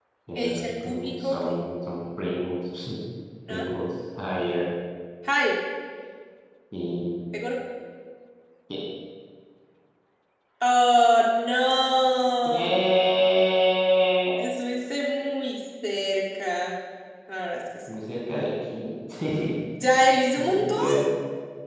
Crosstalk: present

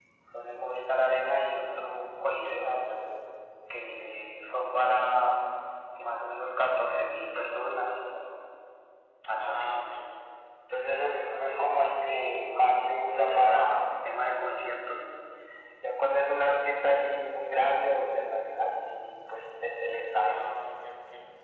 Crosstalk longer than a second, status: none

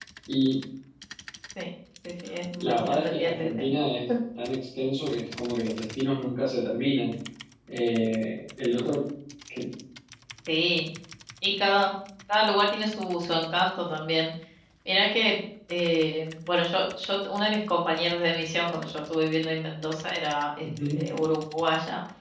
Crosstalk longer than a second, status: present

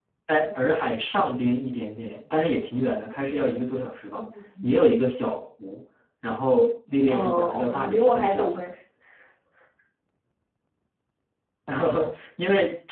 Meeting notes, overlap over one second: present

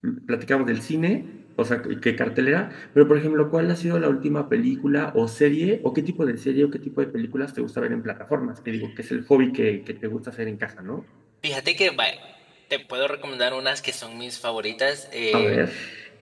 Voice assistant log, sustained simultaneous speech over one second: none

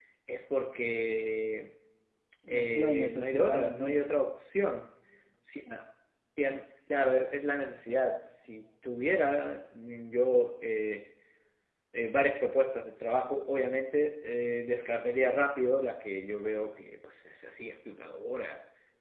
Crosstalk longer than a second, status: present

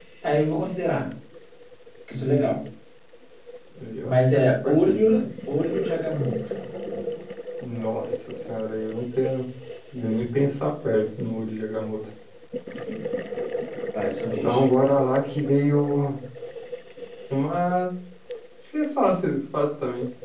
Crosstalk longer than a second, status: present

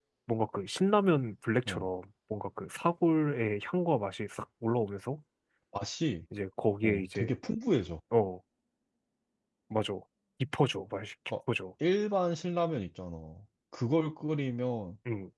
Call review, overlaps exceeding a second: none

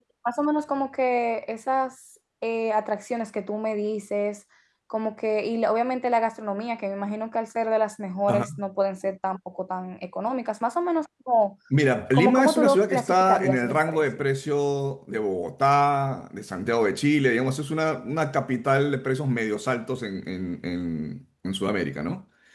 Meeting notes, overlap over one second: present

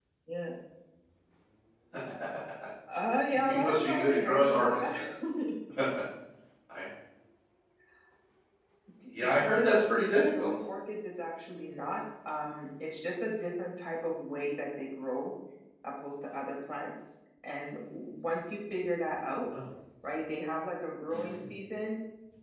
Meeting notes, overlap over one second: present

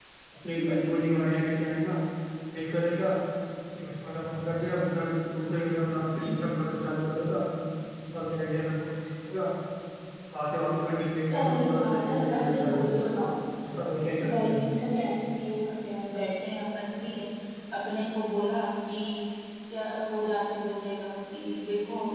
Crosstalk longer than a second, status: present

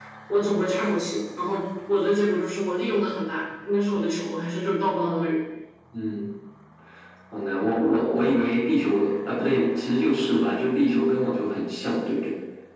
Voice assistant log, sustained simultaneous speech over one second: none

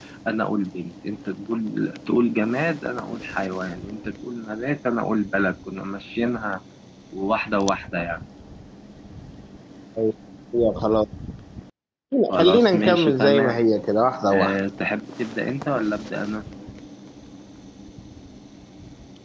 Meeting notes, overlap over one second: present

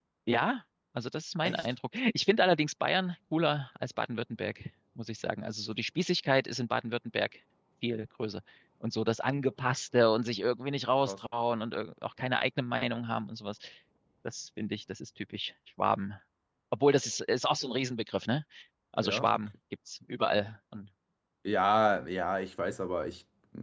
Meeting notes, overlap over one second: none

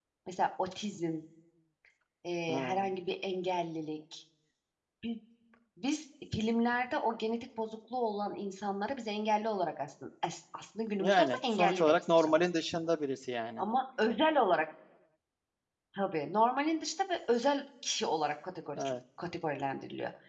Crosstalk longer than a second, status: present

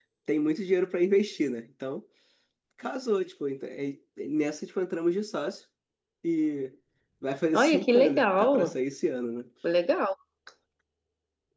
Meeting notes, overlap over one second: present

